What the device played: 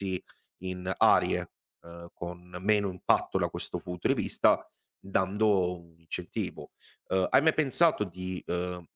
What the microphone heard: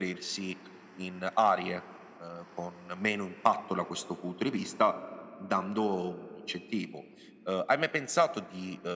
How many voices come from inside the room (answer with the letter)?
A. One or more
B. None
B